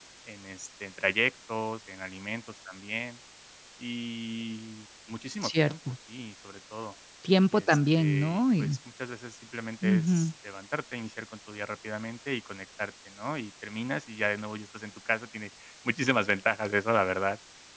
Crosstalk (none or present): present